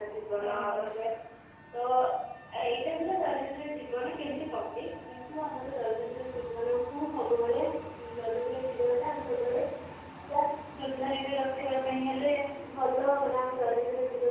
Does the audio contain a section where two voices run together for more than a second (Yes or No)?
No